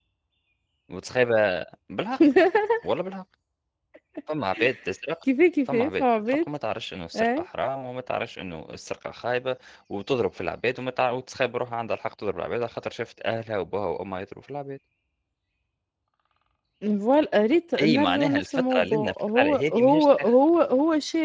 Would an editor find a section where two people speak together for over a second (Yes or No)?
Yes